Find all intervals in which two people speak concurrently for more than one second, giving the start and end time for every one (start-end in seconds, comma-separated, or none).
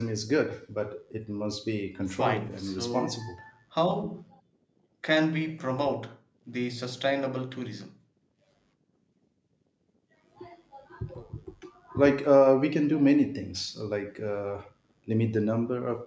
2.1-3.4